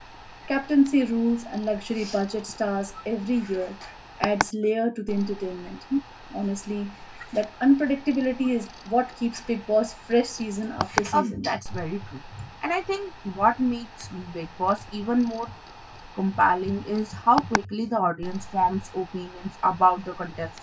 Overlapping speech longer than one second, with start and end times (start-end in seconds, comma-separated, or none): none